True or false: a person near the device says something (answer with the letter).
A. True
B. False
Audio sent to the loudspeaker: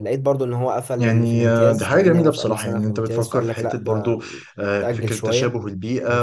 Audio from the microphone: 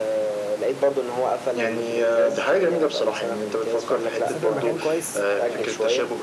A